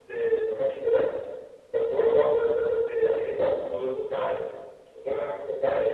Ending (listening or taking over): listening